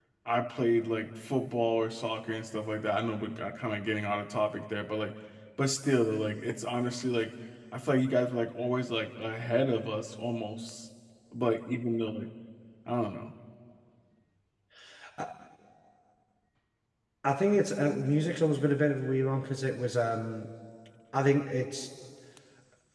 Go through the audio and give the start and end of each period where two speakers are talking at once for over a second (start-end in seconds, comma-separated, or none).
none